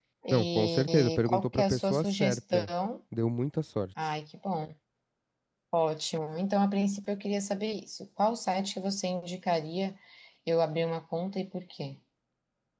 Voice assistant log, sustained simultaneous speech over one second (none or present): present